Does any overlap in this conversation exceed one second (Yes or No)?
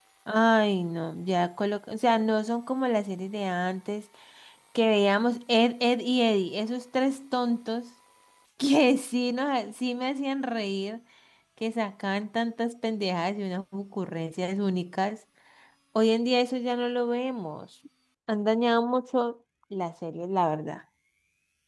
No